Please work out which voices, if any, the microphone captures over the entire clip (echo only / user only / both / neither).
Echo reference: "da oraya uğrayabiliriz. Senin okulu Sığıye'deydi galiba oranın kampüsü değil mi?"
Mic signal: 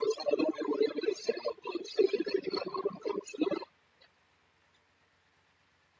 echo only